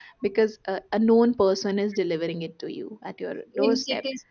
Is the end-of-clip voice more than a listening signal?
Yes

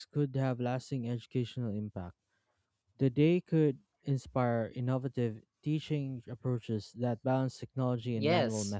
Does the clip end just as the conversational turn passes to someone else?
Yes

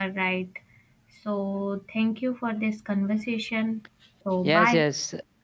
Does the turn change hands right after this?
Yes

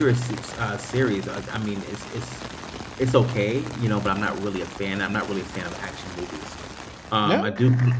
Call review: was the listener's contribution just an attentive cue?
Yes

